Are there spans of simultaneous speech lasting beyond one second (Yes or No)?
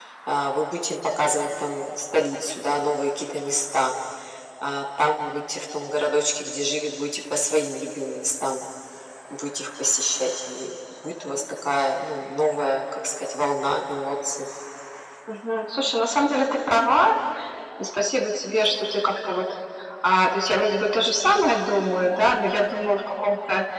No